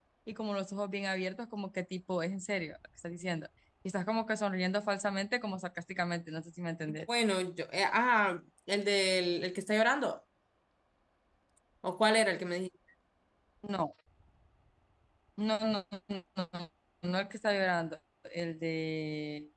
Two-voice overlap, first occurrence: none

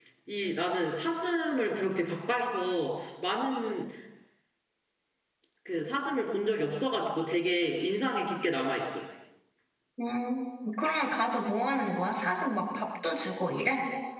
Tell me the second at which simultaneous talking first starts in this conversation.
none

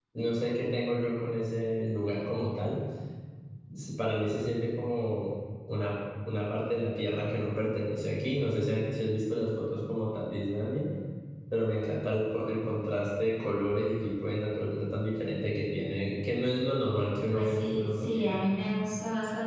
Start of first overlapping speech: 17.3 s

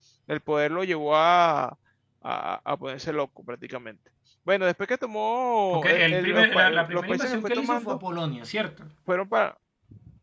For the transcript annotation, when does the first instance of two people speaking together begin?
5.7 s

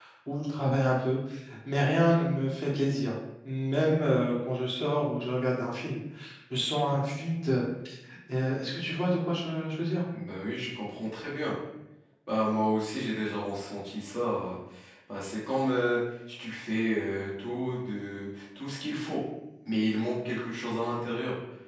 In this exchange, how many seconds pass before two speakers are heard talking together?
none

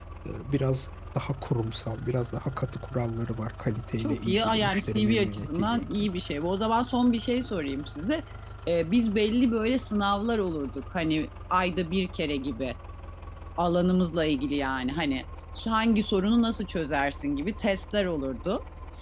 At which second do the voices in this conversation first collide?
4.0 s

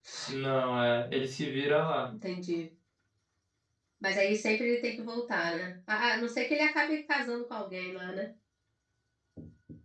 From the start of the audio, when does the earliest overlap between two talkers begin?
none

